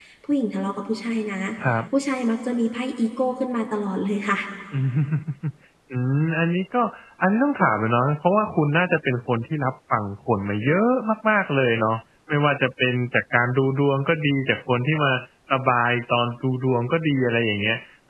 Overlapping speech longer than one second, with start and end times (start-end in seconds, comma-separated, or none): none